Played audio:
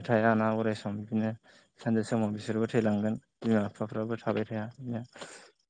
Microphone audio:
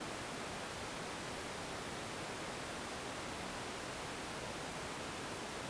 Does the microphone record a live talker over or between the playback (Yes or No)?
No